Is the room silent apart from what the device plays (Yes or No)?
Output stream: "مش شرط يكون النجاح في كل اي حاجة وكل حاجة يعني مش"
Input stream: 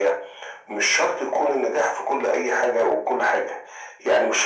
Yes